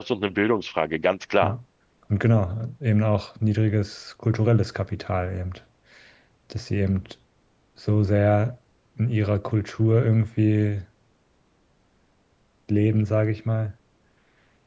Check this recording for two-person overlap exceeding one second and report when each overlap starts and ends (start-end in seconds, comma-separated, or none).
none